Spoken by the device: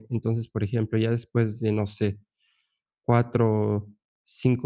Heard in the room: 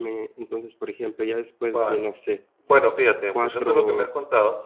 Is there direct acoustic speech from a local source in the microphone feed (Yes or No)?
Yes